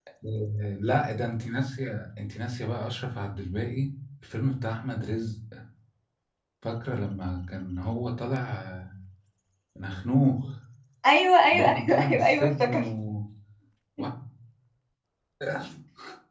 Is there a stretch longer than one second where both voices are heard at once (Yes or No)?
Yes